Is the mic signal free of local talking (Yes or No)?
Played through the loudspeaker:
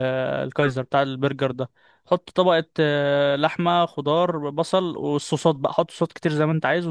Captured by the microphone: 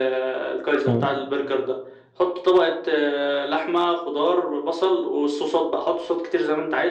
No